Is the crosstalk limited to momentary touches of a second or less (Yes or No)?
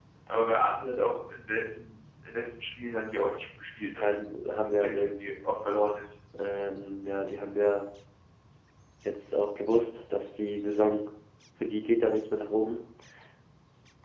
Yes